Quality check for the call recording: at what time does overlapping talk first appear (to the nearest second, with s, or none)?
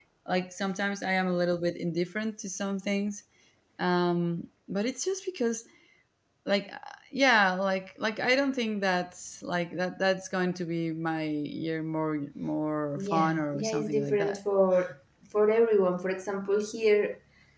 13 s